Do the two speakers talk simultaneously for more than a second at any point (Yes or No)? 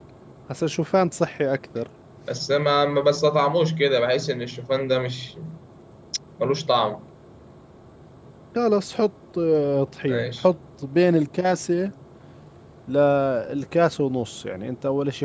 No